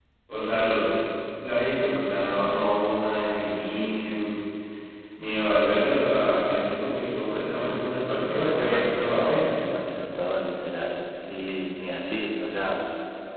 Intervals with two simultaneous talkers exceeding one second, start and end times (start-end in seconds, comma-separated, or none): 8.3-9.6